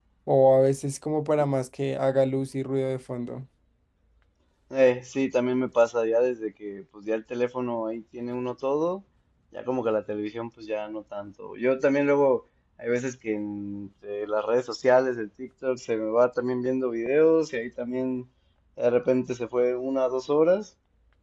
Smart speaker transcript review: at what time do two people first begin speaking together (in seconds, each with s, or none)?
none